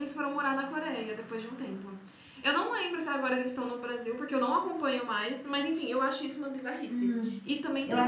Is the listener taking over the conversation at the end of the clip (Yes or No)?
Yes